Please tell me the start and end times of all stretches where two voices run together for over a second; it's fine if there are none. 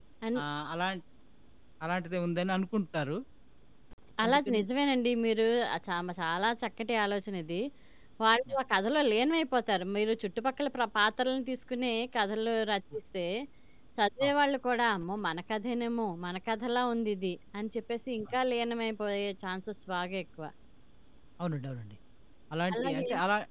none

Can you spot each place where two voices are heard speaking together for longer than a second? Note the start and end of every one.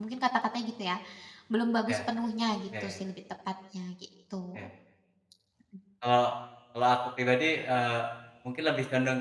none

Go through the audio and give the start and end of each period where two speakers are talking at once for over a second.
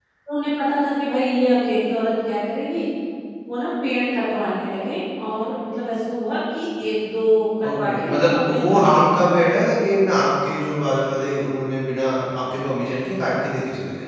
7.6-9.2

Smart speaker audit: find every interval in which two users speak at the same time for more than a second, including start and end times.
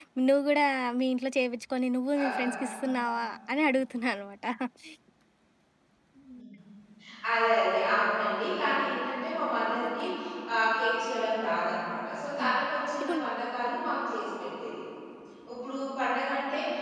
none

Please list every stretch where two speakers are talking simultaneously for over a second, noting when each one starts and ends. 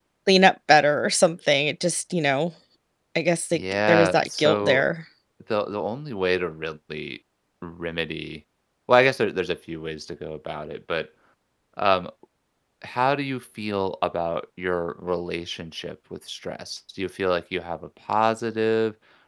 3.5-4.8

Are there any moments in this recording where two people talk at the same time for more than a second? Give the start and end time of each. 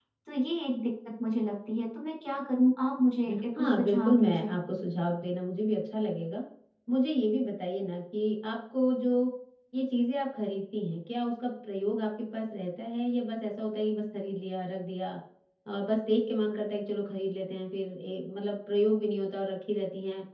3.3-4.5

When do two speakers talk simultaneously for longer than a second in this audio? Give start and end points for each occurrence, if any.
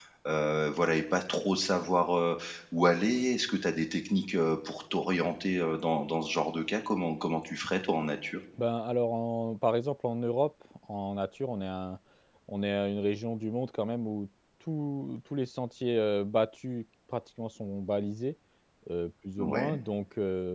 none

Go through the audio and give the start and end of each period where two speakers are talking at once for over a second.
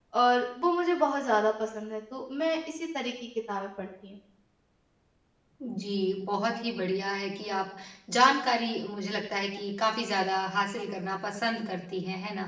none

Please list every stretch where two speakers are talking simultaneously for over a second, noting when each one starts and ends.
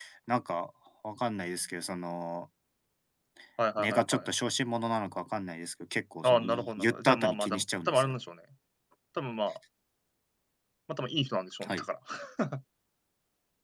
6.2-8.1

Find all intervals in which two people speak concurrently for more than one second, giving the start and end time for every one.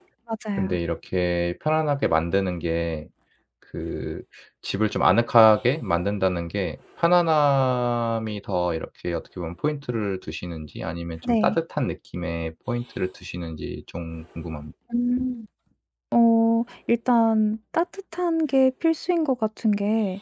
none

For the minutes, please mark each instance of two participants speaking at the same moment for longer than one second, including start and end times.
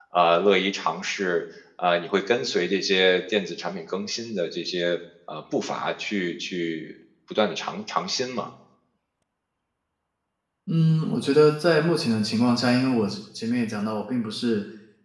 none

